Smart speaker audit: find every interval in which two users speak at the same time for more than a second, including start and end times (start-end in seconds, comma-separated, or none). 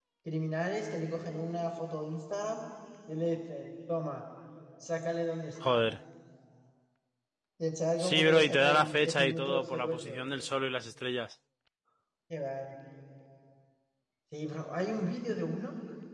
8.0-10.3